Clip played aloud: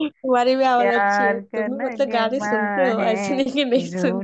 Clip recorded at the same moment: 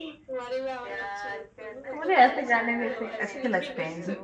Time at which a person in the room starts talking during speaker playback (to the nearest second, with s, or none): 2 s